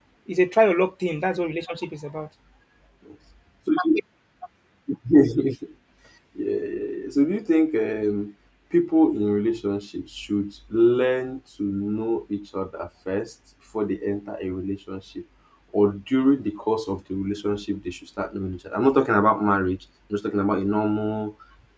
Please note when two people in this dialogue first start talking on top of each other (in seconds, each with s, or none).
none